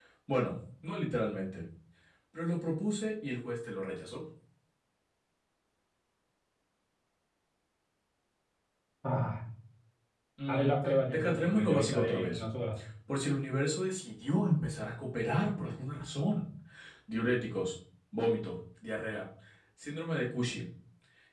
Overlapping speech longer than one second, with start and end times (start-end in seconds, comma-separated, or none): 10.5-12.4